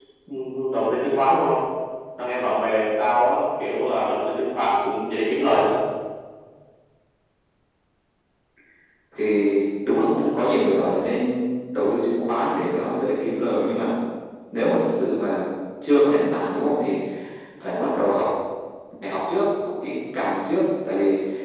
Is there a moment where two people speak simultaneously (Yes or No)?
No